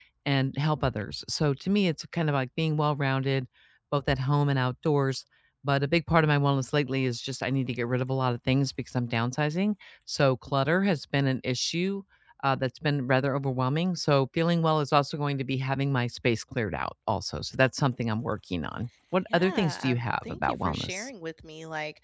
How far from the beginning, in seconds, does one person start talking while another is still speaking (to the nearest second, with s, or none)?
19 s